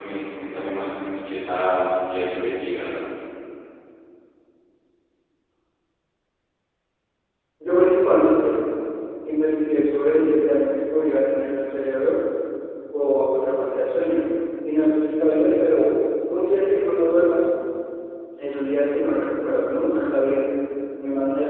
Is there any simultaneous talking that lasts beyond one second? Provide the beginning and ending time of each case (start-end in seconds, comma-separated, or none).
none